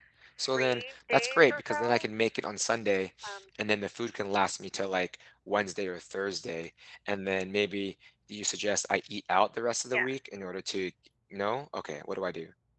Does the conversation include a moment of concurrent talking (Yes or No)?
Yes